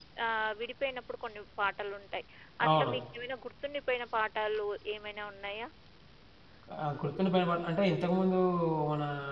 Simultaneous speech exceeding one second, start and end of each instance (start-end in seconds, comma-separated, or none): none